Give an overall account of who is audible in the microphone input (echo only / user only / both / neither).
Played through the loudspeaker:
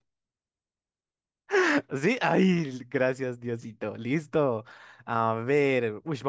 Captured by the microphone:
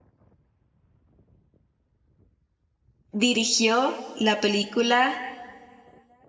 user only